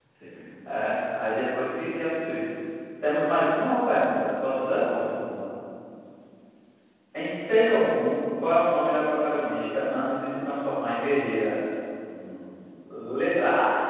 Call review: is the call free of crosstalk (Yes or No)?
Yes